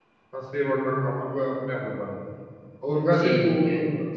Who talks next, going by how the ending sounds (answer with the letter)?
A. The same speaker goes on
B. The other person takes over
A